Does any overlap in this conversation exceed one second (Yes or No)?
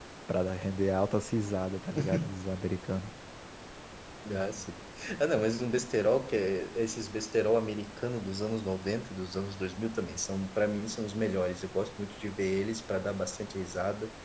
No